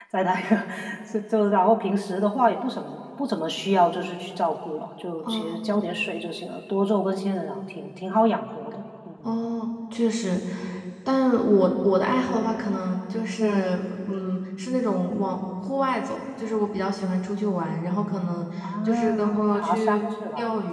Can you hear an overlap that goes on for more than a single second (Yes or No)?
Yes